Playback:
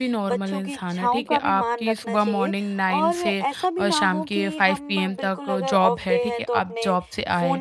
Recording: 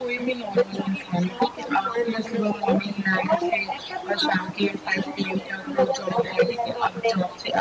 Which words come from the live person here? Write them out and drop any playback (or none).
none